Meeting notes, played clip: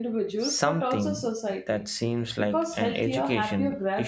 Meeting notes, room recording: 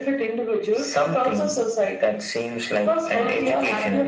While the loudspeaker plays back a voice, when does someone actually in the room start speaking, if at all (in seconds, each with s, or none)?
3.1 s